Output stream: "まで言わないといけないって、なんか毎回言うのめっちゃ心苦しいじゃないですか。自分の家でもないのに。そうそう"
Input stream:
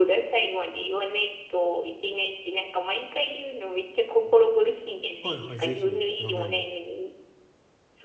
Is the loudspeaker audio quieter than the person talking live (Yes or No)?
No